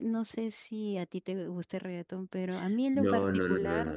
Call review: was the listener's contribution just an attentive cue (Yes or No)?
No